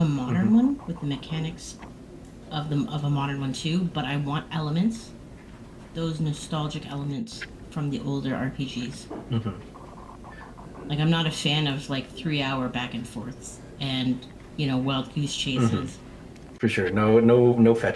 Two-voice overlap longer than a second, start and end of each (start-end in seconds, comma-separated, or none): none